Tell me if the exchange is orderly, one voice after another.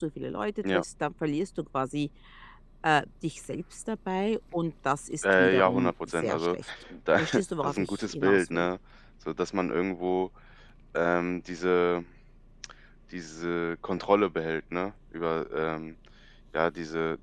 No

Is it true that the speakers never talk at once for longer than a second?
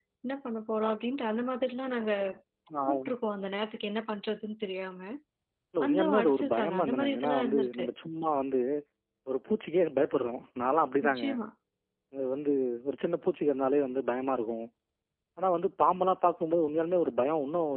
No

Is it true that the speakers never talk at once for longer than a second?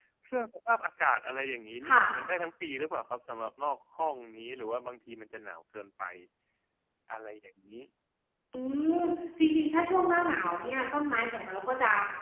Yes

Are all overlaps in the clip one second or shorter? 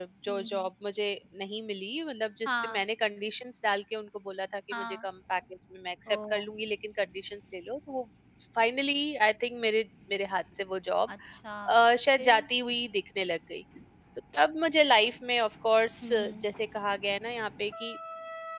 Yes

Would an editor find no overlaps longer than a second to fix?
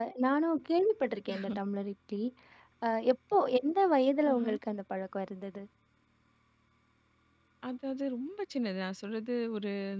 Yes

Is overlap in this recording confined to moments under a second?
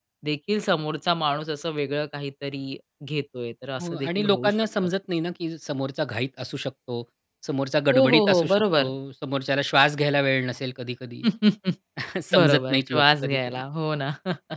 No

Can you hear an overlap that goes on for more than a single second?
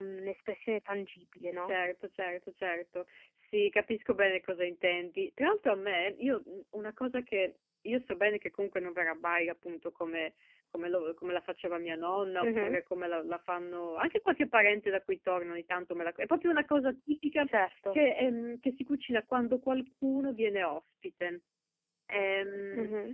No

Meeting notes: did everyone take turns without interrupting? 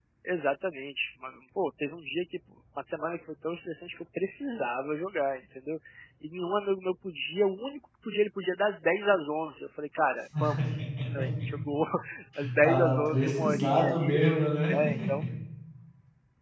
No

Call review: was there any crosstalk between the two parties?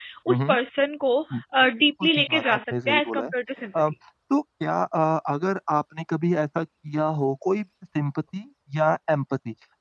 Yes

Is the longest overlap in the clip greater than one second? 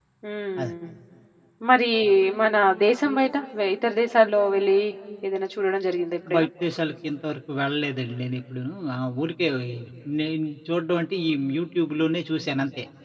No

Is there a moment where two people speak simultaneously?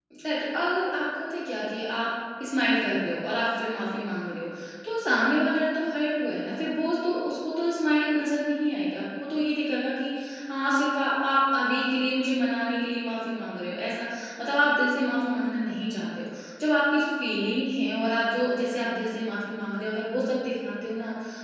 No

